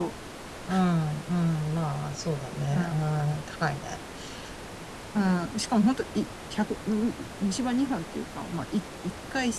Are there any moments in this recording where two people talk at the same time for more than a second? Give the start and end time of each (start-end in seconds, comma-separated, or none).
none